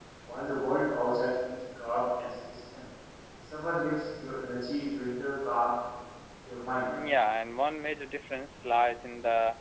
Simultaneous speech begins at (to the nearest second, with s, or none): none